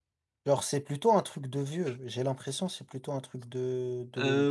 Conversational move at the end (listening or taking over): taking over